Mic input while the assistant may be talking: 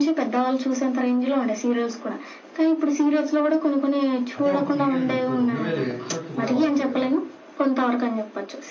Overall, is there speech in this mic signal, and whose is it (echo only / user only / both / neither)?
both